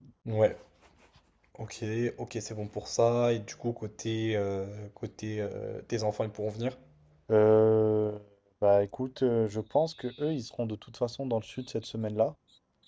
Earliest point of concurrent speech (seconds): none

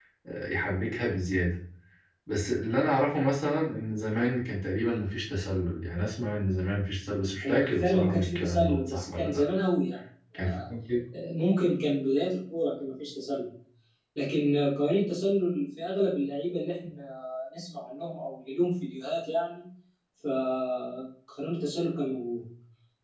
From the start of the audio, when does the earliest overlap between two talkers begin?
7.4 s

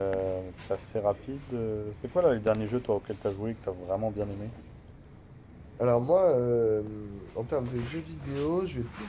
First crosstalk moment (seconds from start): none

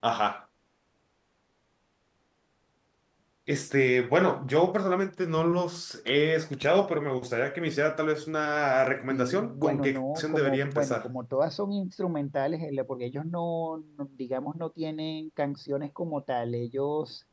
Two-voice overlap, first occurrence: 9.1 s

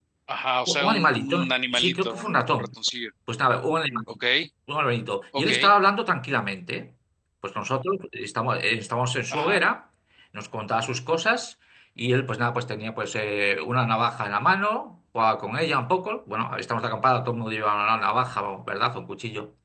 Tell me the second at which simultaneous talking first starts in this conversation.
0.7 s

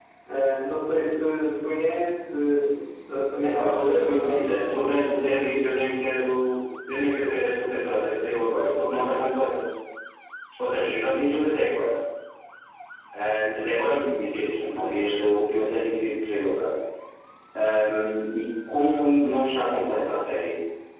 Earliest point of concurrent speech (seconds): 3.4 s

